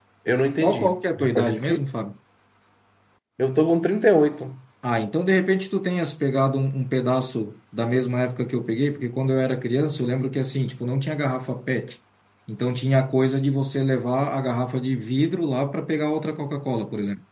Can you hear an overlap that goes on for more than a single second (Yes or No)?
Yes